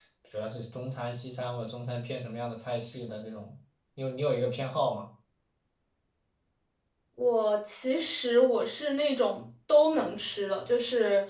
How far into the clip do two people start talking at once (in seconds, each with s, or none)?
none